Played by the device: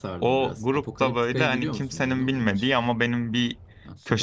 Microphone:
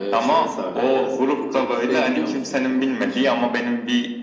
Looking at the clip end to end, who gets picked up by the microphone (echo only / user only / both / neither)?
echo only